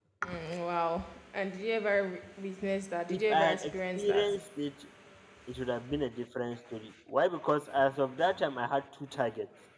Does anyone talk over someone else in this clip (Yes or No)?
Yes